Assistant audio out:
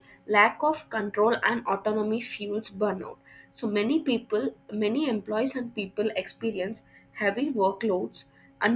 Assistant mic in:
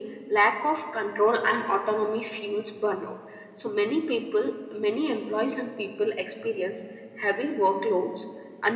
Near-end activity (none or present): none